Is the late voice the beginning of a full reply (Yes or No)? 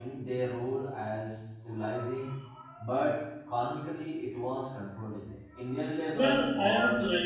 Yes